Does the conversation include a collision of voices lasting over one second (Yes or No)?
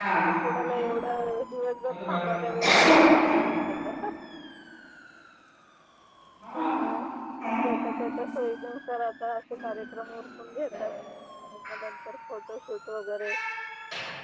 Yes